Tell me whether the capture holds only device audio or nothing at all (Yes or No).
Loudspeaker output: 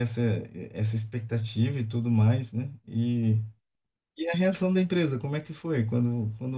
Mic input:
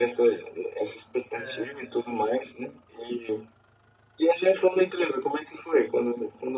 No